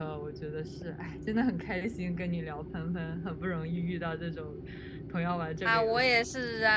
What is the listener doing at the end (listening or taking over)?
taking over